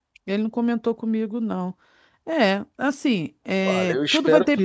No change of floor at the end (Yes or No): No